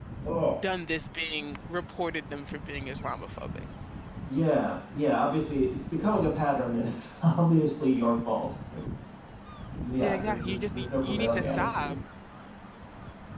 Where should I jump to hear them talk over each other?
10.0 s

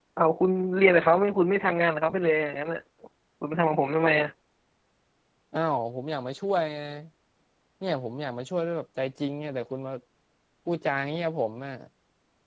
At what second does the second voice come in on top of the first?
none

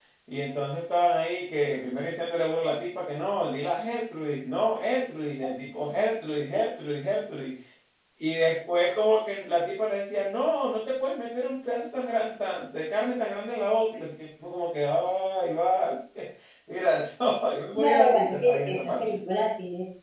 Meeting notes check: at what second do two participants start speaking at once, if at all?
17.7 s

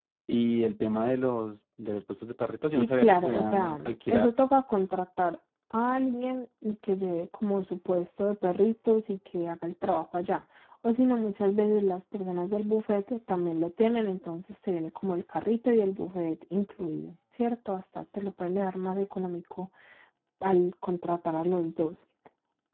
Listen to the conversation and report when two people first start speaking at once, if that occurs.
2.8 s

